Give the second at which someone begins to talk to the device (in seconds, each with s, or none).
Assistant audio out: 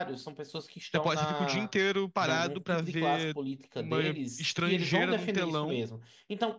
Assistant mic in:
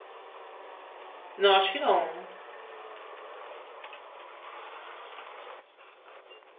1.4 s